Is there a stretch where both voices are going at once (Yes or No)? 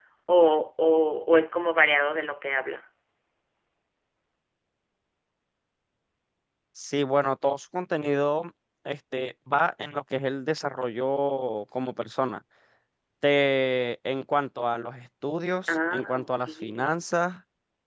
Yes